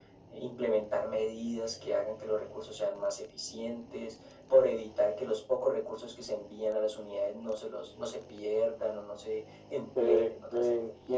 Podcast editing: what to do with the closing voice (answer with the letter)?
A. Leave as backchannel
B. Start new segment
B